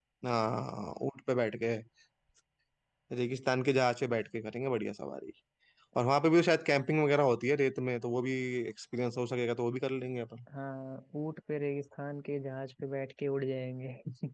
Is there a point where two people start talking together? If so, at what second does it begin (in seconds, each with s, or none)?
none